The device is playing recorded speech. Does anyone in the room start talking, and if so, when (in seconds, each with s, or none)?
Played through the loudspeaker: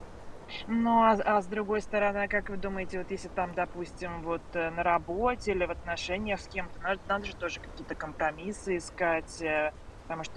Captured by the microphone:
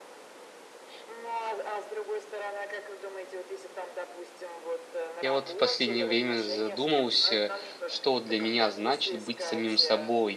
5.2 s